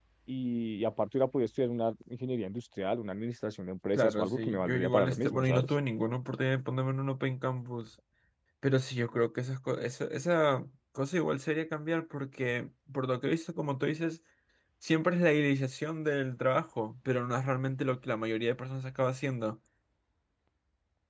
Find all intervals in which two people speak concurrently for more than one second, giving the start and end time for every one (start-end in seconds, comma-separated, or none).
3.9-5.7